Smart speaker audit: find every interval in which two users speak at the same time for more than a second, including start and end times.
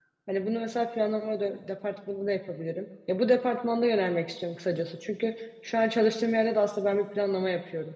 none

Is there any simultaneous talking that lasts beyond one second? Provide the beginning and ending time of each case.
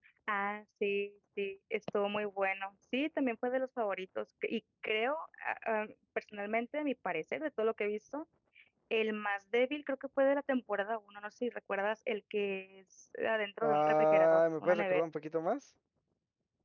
13.6-15.1

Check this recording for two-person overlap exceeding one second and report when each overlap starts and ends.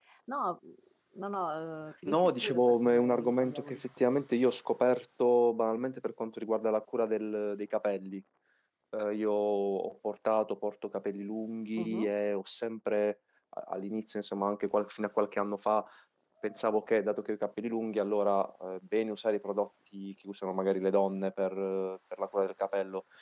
2.0-4.1

